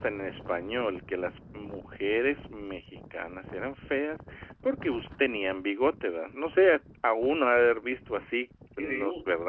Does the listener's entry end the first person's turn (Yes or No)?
No